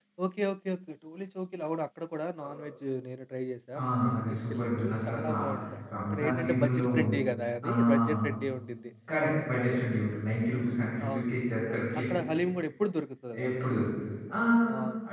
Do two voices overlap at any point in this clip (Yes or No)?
Yes